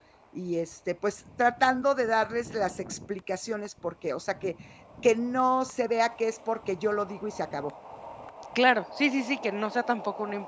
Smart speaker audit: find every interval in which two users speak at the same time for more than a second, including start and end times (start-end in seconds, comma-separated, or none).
none